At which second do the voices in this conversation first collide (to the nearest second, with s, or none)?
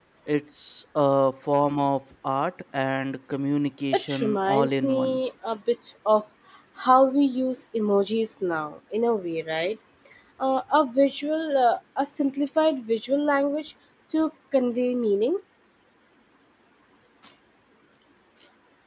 4 s